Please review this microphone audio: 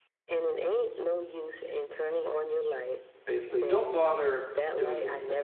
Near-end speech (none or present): present